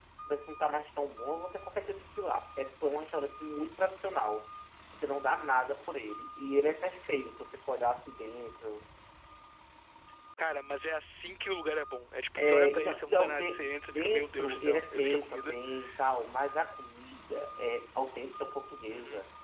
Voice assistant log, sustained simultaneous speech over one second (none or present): present